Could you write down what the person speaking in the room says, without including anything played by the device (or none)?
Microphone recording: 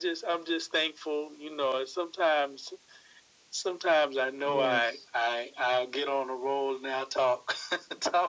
Yes.